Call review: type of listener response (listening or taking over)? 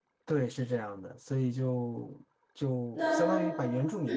listening